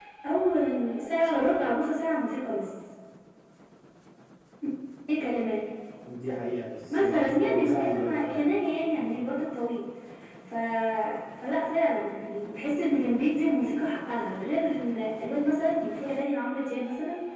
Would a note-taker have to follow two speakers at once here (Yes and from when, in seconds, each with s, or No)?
Yes, from 6.9 s